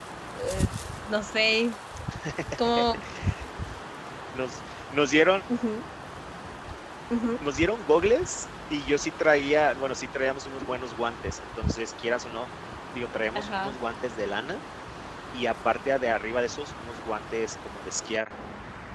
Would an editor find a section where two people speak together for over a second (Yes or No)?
No